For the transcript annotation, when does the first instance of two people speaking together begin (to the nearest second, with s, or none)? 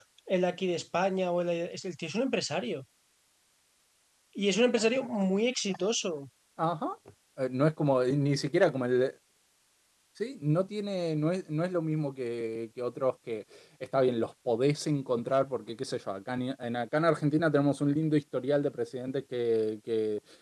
none